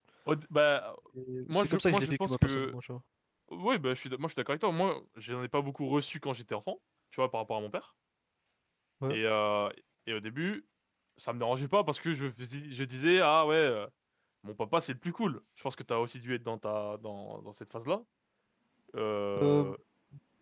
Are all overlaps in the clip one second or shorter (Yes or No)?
No